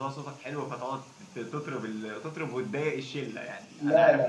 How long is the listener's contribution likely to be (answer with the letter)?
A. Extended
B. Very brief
A